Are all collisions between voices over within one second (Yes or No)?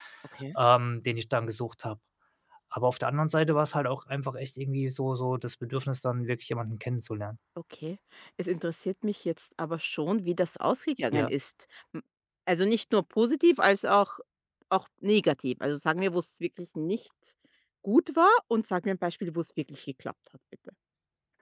Yes